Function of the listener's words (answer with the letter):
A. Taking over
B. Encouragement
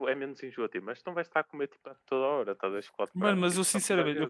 A